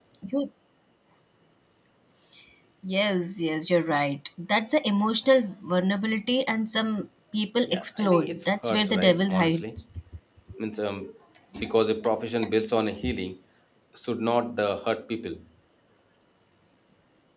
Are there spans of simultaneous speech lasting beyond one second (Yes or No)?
Yes